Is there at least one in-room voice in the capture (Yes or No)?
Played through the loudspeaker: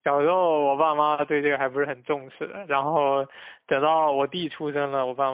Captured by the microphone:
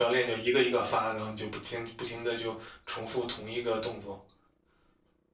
Yes